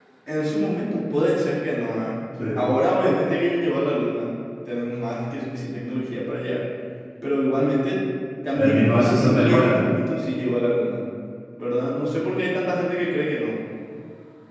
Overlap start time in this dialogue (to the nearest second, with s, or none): 9 s